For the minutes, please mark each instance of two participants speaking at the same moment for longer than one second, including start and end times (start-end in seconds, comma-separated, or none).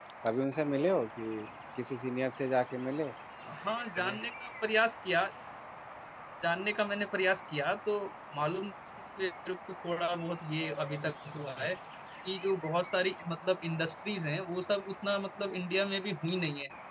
none